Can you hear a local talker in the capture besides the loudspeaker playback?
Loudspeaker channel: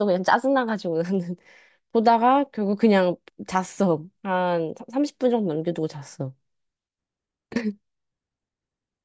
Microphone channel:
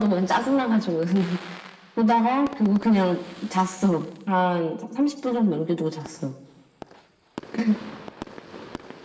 No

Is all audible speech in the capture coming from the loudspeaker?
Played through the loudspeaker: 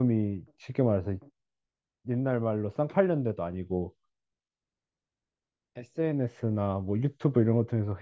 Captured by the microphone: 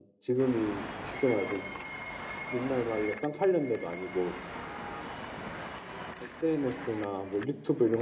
Yes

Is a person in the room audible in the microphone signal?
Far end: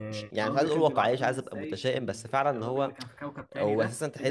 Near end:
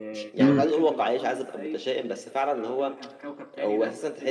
Yes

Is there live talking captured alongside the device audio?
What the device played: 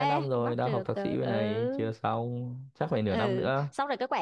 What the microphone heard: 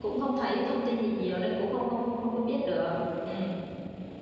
Yes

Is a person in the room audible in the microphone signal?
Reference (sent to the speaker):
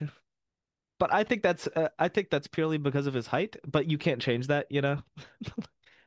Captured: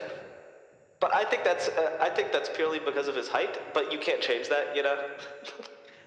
No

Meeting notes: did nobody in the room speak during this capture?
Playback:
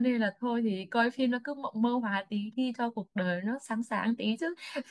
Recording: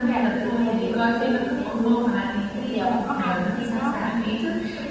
No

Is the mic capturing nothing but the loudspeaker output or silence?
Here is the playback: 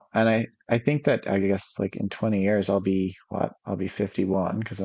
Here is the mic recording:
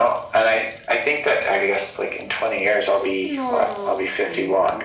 No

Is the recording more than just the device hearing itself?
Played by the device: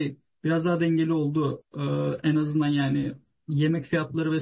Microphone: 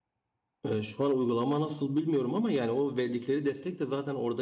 Yes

